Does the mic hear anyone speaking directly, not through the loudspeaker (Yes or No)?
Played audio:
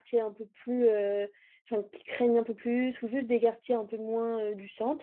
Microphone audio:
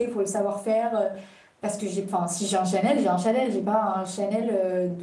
Yes